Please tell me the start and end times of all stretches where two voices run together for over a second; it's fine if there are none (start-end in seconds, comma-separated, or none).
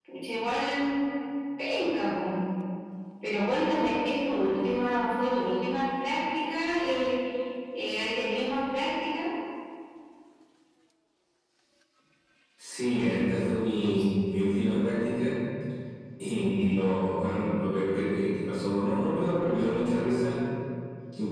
none